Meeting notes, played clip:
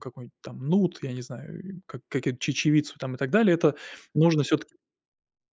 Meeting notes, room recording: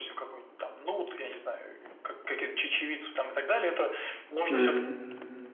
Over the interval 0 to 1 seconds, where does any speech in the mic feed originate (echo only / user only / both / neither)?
echo only